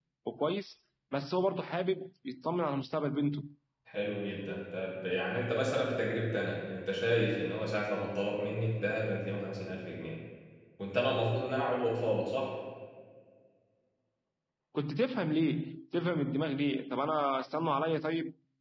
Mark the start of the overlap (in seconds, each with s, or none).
none